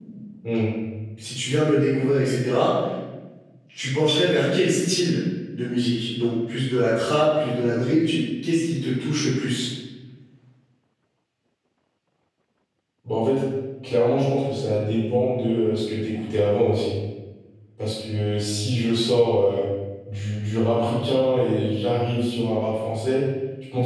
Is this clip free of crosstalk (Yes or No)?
Yes